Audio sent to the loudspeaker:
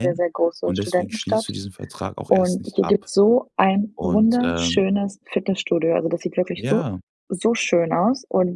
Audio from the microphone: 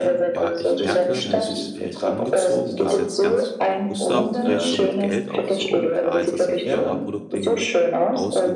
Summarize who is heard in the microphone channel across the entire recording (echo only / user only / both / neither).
both